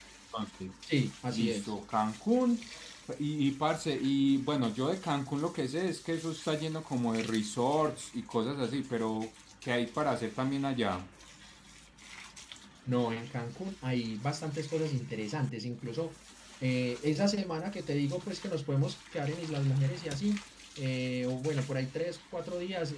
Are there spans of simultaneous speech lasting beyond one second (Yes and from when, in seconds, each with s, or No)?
No